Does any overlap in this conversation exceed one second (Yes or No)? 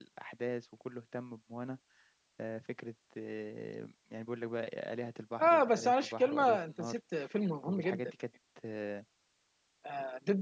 Yes